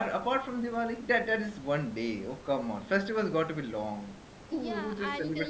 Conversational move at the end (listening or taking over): taking over